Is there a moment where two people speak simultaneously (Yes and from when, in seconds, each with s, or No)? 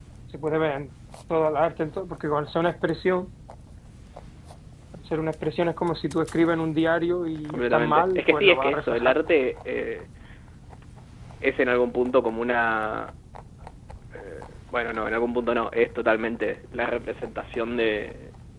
Yes, from 7.5 s